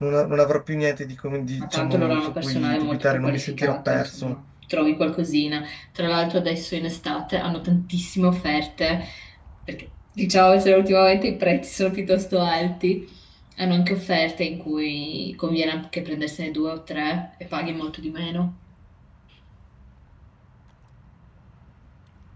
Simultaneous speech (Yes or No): Yes